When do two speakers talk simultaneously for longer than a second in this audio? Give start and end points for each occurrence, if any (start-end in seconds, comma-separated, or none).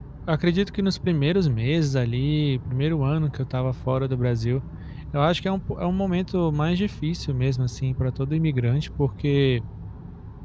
none